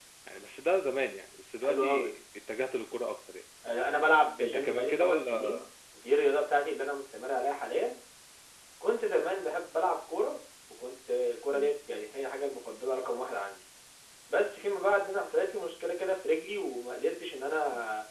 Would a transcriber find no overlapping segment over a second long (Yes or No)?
No